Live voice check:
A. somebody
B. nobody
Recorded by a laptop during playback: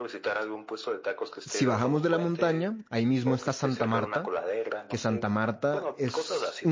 A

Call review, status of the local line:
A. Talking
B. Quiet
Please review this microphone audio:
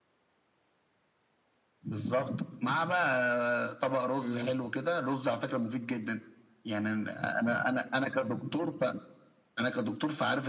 A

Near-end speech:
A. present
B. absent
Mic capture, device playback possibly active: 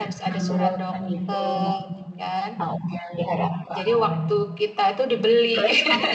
A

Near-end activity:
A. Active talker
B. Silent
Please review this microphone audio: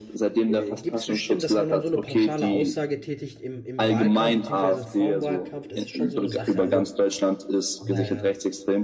A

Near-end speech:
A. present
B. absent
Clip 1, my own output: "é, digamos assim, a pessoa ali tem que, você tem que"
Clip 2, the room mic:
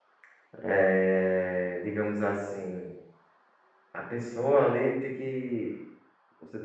B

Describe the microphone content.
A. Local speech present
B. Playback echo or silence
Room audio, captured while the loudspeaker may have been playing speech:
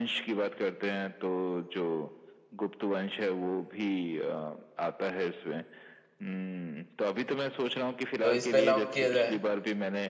A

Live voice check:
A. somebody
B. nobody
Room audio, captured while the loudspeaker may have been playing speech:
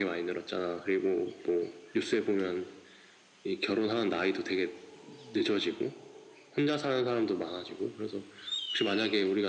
B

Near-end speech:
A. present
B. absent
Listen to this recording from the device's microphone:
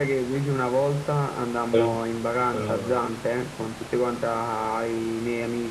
A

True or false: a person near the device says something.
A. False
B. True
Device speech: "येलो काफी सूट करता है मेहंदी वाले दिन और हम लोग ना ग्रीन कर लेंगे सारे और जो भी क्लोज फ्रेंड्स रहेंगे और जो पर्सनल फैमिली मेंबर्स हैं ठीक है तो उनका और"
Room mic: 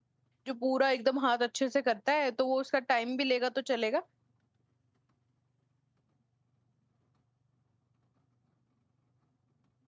B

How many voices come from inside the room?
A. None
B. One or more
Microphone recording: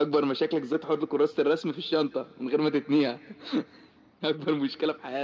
A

